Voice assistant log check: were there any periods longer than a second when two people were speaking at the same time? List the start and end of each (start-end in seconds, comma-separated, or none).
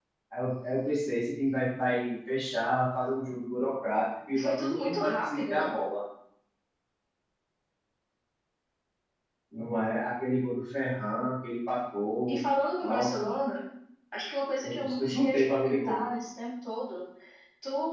4.3-5.7, 14.6-16.0